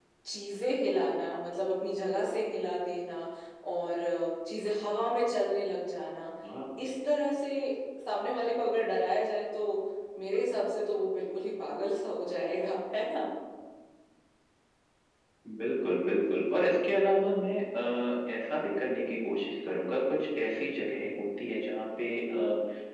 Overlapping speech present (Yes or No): No